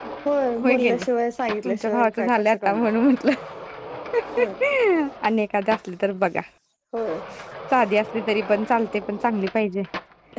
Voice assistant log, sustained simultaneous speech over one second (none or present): present